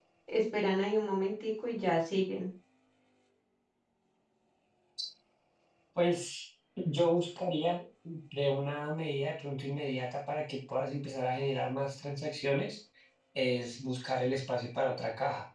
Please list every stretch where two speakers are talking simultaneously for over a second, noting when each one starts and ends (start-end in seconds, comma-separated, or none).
none